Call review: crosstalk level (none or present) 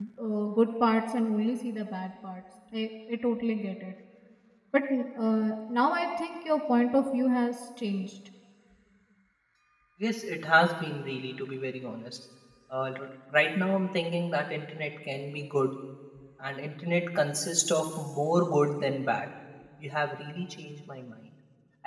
none